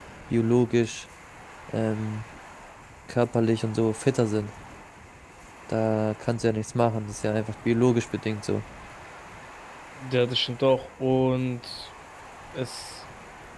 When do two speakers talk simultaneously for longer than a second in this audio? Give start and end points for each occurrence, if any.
none

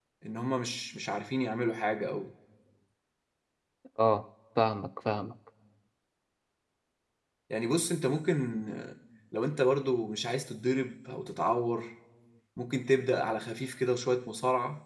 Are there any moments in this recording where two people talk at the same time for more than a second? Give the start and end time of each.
none

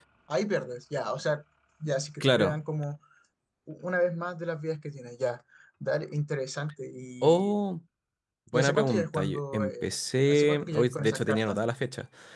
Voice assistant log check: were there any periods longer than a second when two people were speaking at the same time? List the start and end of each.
8.5-9.8, 10.3-11.6

